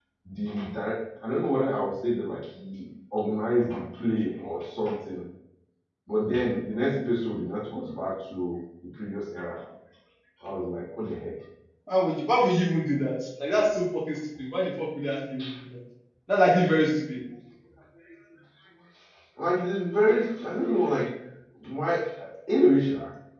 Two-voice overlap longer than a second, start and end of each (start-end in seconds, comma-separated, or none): none